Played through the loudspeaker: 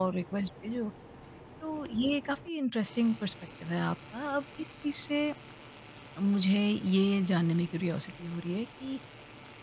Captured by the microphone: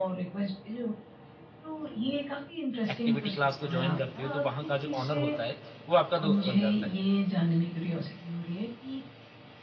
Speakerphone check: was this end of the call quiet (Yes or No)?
No